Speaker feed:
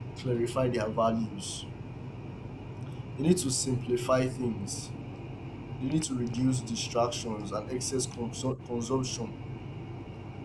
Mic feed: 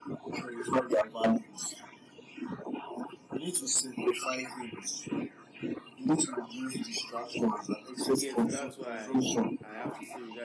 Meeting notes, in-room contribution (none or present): present